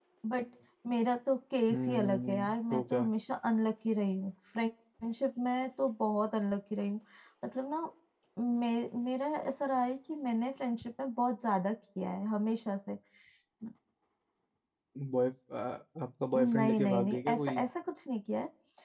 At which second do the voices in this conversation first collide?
1.7 s

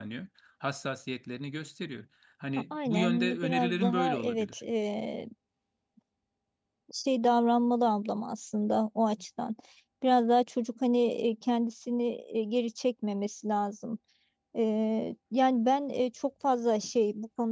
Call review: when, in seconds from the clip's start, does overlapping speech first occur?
2.7 s

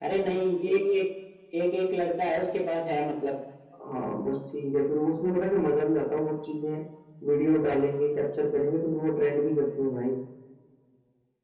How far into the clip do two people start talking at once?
none

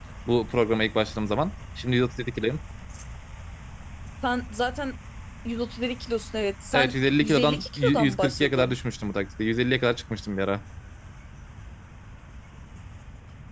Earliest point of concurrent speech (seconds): 6.7 s

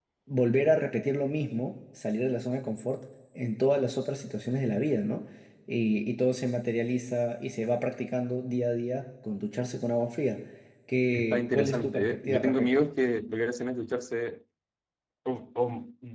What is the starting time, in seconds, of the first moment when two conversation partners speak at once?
11.1 s

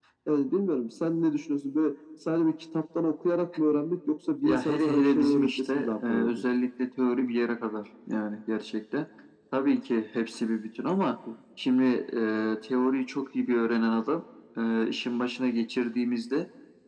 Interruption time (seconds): 4.4 s

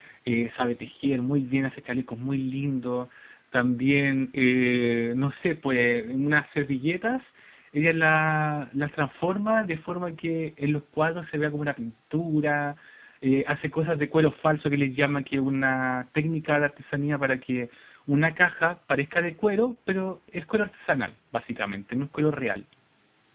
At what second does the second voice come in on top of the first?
none

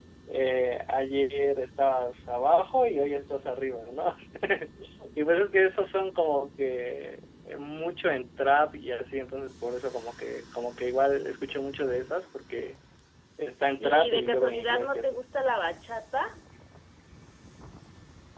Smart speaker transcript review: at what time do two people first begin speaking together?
13.8 s

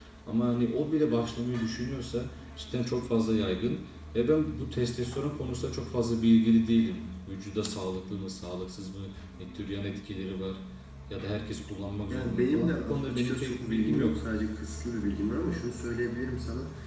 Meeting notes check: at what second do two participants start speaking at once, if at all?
12.1 s

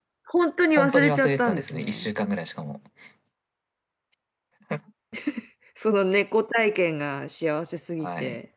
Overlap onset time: 0.8 s

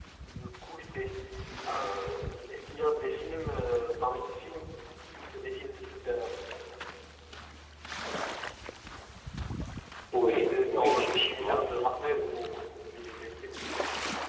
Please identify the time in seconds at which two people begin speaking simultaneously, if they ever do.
10.1 s

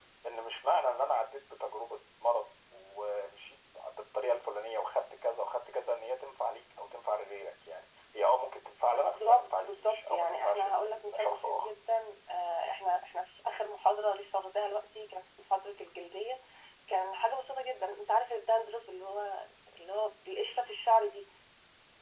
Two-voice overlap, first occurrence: 8.9 s

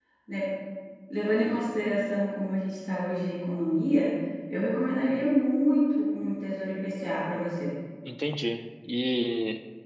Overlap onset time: none

